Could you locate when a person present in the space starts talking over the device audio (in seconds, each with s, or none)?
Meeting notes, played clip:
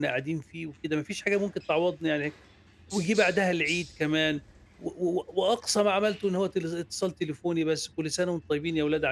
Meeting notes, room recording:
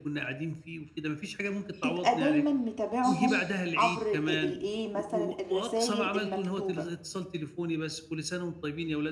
1.8 s